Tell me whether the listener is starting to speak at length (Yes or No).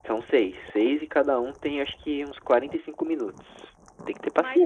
Yes